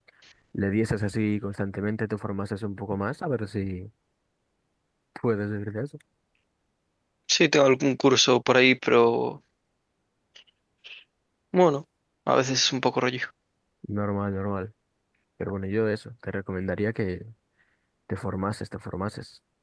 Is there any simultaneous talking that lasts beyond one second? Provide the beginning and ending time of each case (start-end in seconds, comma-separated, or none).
none